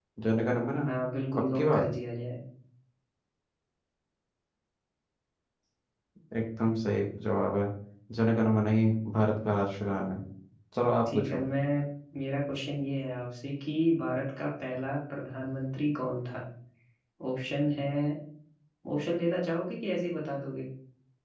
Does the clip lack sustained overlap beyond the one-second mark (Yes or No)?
Yes